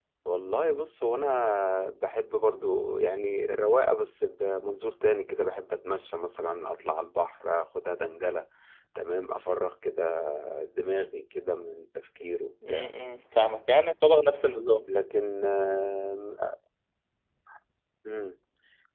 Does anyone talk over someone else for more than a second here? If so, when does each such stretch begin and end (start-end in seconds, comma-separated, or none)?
none